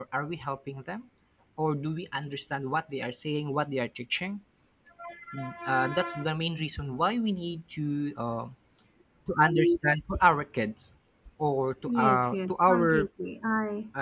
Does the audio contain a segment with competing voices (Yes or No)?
Yes